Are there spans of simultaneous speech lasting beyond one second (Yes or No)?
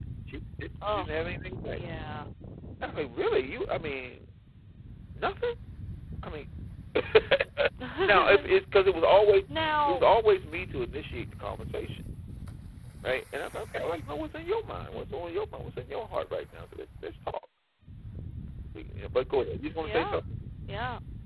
No